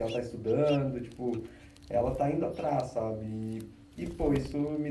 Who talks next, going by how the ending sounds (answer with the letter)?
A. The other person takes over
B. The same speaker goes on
B